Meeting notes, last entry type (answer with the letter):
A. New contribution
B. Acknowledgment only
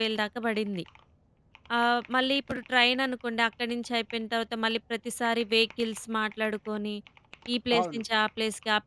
B